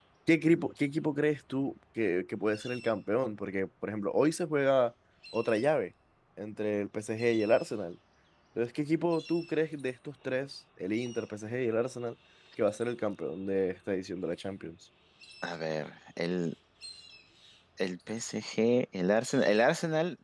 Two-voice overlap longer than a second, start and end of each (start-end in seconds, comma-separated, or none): none